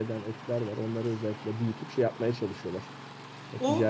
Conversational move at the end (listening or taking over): taking over